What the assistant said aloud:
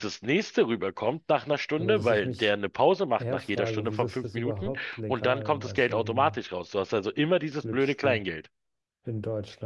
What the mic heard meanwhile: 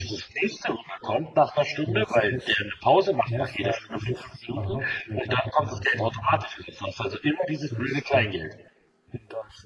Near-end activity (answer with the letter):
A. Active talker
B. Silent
B